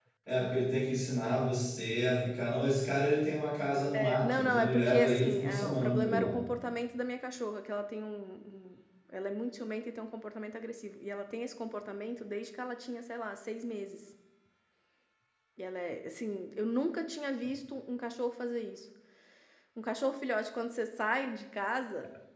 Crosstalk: present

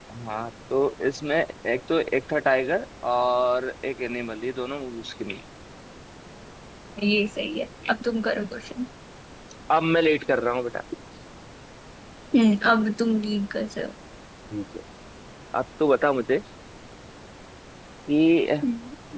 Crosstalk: none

